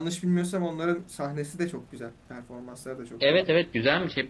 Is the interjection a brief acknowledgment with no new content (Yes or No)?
No